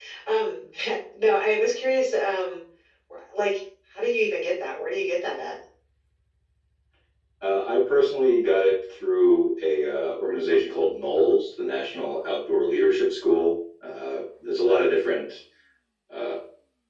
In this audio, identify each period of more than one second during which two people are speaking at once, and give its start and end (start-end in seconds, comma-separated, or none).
none